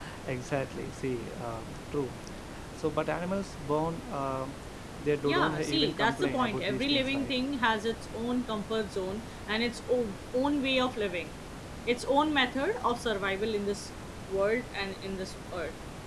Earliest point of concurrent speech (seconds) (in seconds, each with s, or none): 5.2 s